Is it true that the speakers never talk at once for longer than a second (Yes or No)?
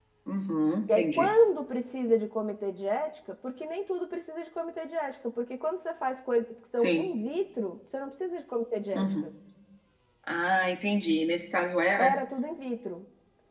Yes